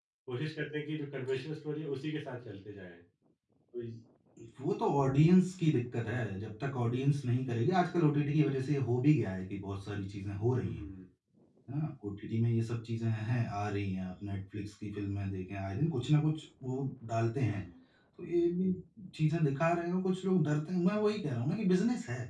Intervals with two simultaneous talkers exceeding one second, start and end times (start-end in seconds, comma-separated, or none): none